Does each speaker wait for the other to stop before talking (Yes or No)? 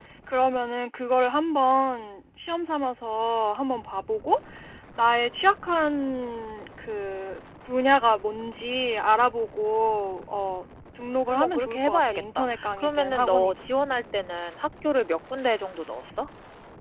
No